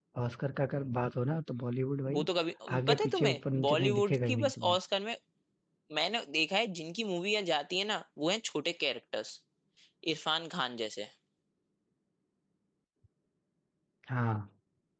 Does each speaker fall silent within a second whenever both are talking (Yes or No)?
No